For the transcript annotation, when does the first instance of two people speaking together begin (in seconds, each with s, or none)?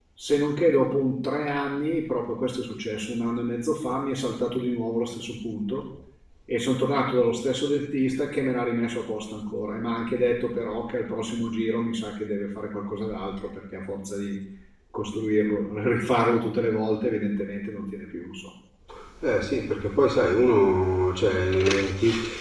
none